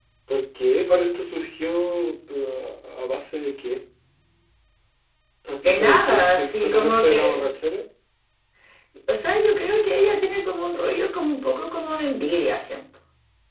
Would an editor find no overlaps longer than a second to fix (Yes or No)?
No